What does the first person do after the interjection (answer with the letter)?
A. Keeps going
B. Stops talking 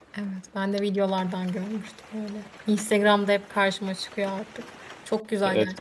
B